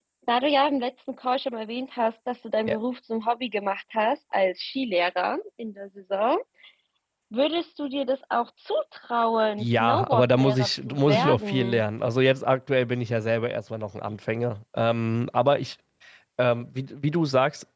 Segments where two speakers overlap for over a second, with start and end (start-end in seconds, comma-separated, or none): 9.6-11.8